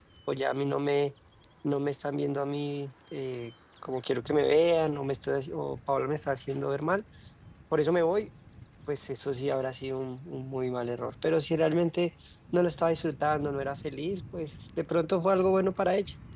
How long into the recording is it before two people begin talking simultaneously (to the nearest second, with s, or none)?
none